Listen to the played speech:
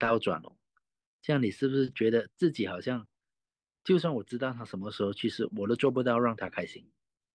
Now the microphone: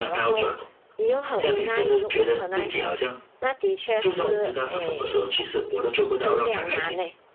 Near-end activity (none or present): present